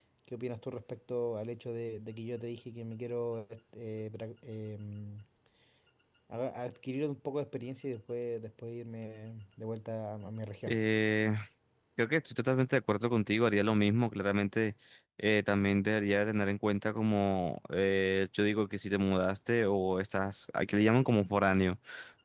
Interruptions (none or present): none